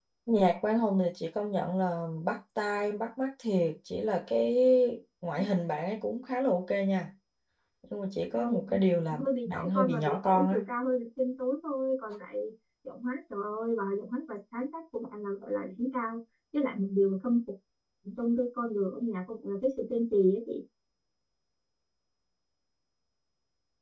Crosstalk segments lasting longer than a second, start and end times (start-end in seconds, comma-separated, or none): 9.2-10.6